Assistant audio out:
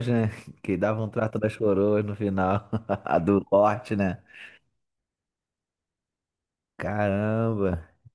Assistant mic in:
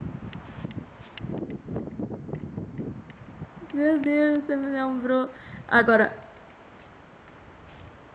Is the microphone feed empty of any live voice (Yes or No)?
No